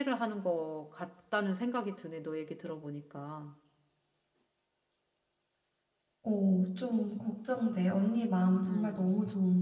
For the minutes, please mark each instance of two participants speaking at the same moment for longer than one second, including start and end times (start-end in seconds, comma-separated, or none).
none